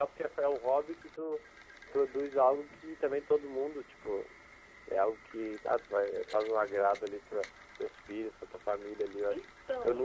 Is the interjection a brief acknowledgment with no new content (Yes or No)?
Yes